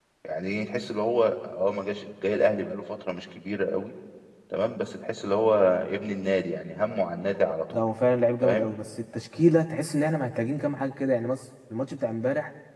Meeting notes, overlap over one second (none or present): none